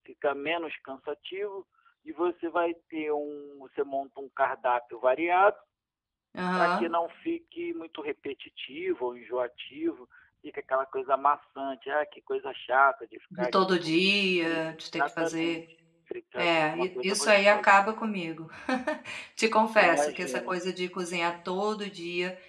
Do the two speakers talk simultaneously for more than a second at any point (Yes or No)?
Yes